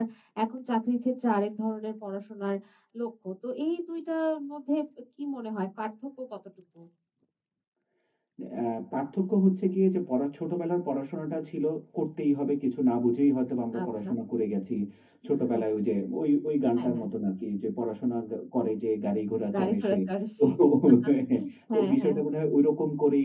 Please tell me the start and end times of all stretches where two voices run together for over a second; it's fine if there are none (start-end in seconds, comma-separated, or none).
none